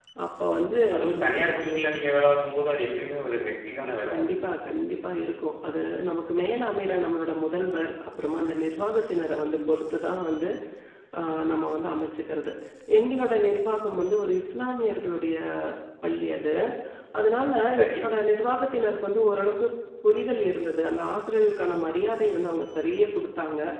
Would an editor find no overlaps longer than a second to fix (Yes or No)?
Yes